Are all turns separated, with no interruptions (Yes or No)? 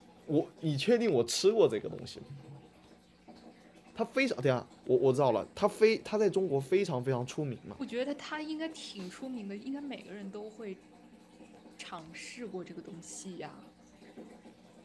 Yes